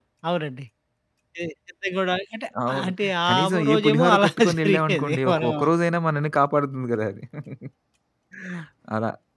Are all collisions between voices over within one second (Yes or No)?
No